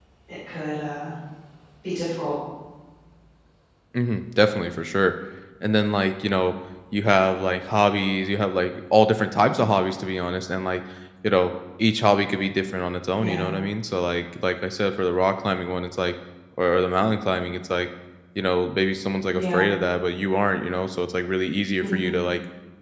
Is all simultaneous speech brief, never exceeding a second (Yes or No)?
Yes